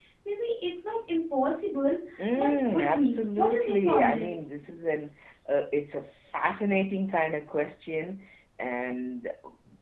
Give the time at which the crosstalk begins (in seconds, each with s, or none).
2.4 s